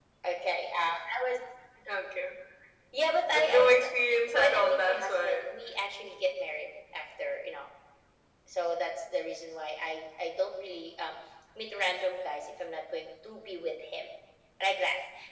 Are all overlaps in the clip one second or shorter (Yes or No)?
No